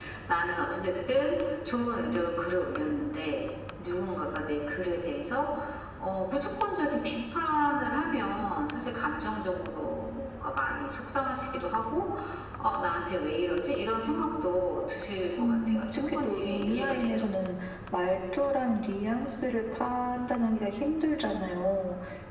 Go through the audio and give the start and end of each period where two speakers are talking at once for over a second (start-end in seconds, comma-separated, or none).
15.4-17.3